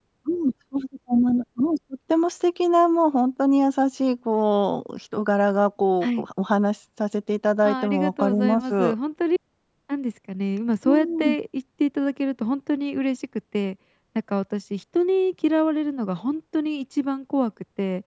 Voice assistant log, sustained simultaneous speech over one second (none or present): present